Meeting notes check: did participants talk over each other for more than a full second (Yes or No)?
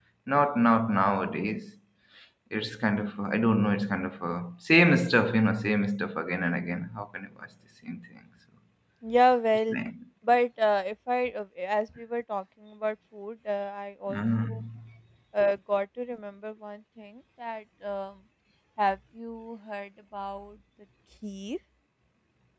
No